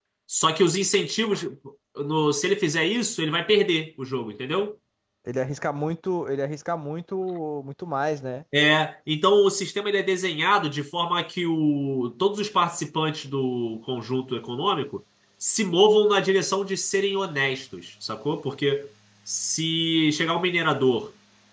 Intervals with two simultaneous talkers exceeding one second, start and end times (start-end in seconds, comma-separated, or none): none